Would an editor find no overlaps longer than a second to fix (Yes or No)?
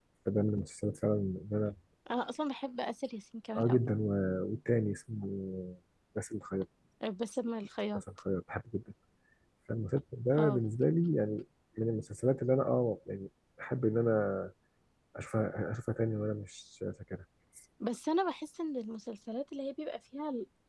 Yes